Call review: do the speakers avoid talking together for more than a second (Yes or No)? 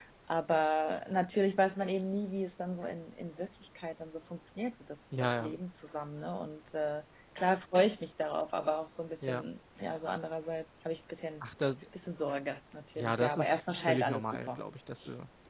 No